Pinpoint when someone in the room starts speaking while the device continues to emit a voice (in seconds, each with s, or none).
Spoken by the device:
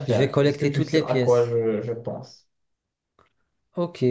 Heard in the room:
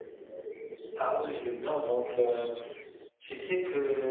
0.9 s